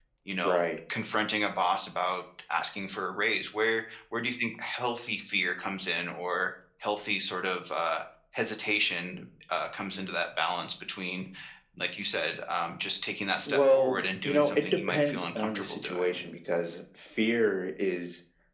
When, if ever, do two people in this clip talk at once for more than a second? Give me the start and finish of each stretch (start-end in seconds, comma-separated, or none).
13.5-16.2